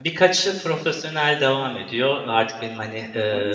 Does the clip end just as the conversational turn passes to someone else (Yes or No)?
No